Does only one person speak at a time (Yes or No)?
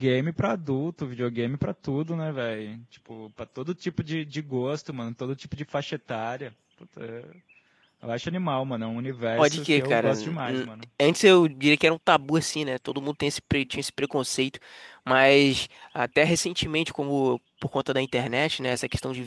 No